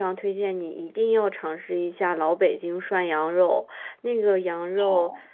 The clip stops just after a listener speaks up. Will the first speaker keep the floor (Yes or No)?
Yes